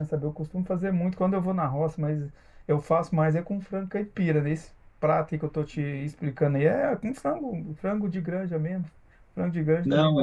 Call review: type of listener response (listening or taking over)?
listening